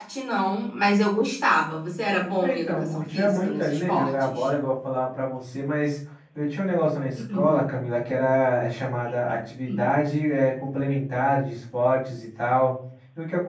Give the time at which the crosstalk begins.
2.4 s

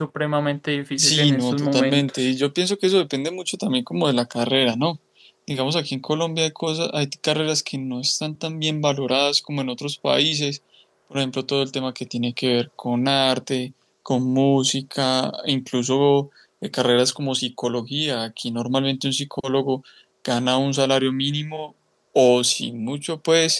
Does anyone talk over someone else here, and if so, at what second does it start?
1.0 s

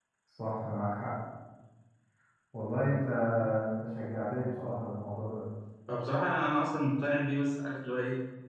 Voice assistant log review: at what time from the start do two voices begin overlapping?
none

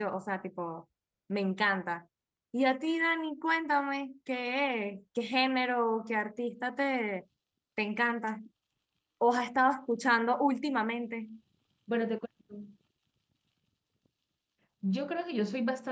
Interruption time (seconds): none

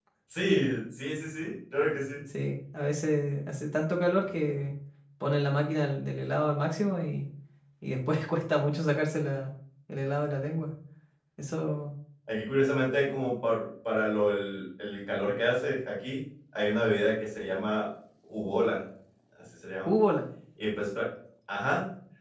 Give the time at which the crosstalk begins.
none

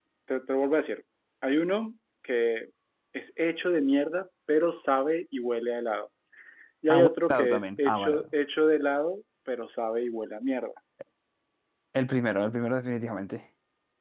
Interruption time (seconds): 6.9 s

